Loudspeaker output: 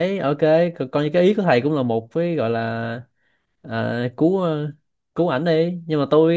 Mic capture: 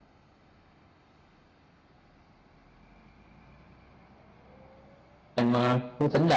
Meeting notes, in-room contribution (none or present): present